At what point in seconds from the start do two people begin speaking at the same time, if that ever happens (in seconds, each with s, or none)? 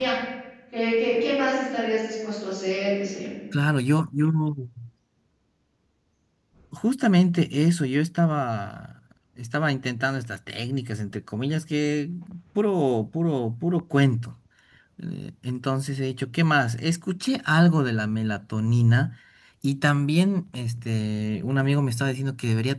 none